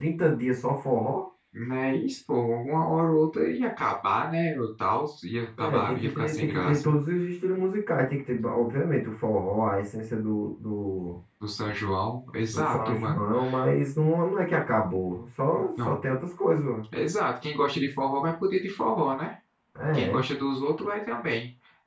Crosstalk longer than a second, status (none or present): present